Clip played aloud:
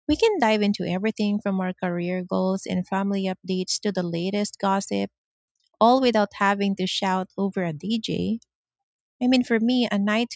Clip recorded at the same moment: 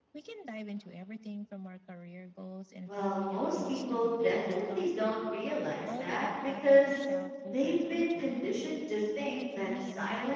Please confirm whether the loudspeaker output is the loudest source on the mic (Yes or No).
No